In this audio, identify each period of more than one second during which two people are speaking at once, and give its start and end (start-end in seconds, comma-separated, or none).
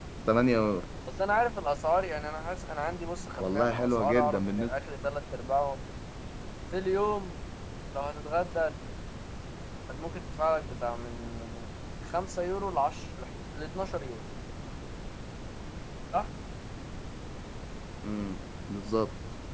3.4-4.7